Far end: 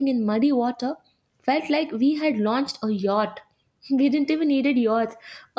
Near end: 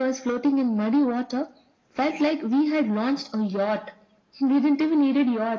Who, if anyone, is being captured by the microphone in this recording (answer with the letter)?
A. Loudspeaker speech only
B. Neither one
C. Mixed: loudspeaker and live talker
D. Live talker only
A